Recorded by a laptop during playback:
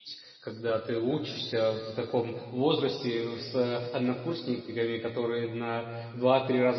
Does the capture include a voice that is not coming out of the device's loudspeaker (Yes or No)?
Yes